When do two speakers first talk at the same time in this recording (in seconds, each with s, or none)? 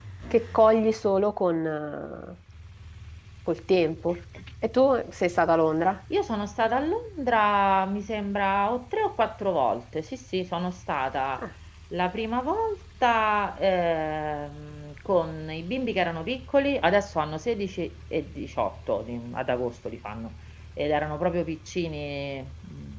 none